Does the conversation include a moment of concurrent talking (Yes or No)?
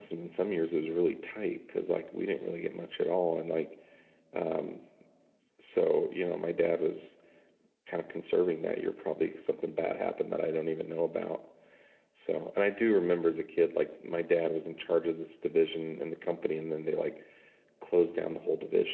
No